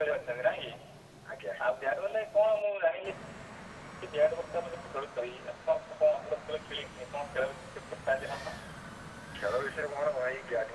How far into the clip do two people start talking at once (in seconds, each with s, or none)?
none